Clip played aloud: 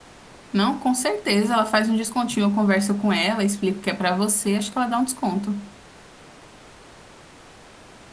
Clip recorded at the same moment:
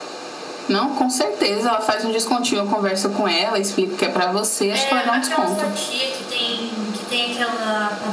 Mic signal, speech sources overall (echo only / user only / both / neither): both